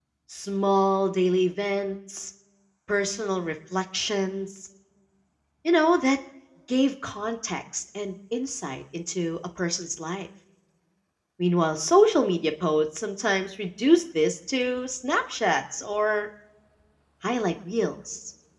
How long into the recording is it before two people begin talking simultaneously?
none

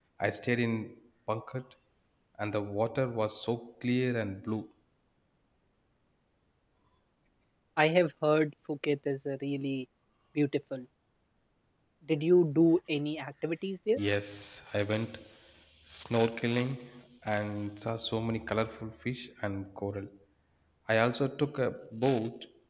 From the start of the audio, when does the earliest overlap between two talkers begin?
none

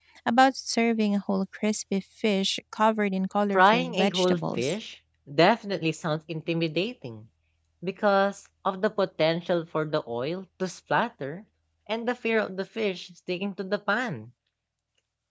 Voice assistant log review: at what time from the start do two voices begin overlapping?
3.5 s

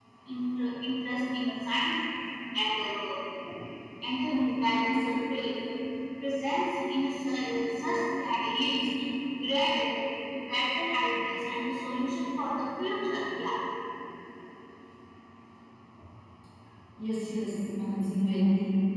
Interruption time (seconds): none

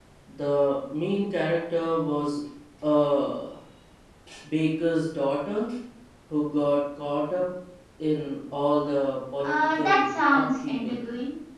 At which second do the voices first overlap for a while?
9.4 s

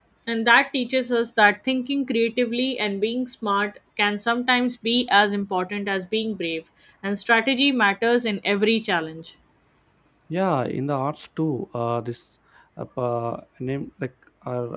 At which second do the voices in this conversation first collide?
none

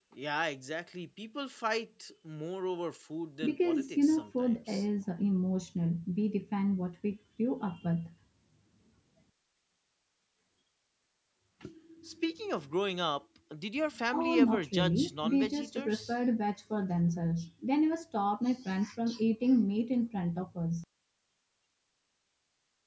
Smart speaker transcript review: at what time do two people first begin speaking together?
3.4 s

